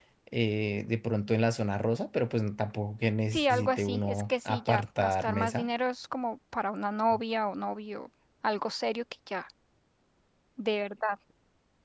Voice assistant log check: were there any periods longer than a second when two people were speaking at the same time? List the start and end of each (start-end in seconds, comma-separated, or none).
3.3-5.7